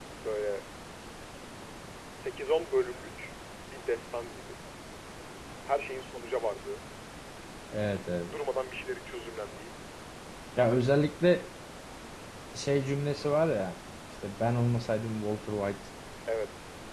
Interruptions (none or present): none